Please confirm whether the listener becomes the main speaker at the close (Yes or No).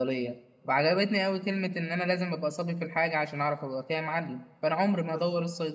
No